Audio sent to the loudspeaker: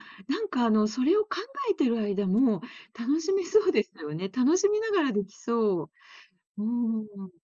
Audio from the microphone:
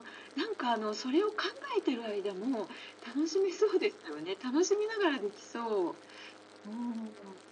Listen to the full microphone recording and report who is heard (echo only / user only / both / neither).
echo only